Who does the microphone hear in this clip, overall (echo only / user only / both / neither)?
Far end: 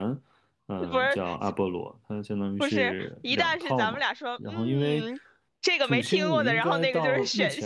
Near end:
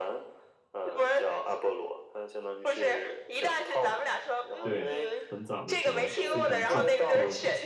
both